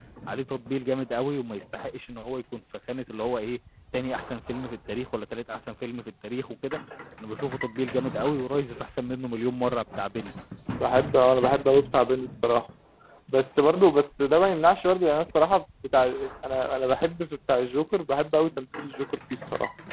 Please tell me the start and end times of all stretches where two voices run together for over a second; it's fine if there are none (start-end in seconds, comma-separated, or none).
none